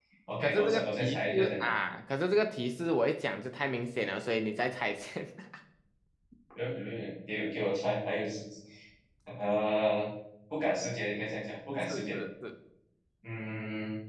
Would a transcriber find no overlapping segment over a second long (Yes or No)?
No